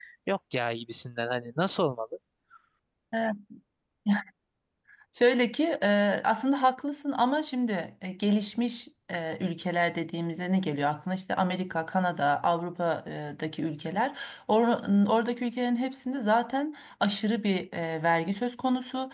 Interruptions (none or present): none